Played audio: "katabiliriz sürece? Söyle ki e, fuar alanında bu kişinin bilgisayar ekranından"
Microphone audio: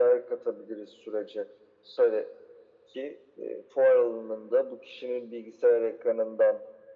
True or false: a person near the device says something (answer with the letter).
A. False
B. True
A